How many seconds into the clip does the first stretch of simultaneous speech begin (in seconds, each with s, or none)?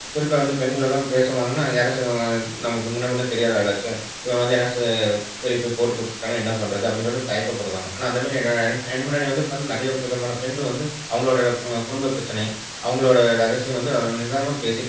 none